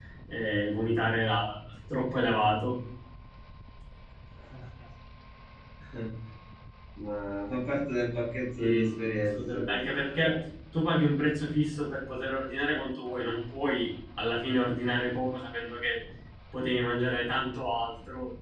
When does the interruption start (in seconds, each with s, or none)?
8.6 s